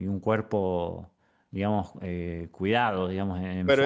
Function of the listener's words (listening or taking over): taking over